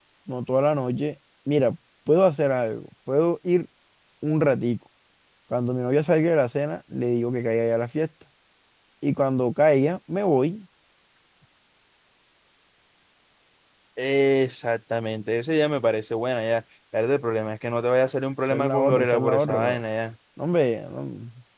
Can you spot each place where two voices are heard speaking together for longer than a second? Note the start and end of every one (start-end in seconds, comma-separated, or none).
18.5-19.8